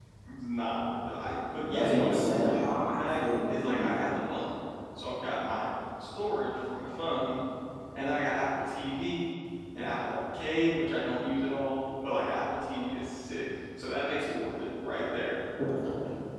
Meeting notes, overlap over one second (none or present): present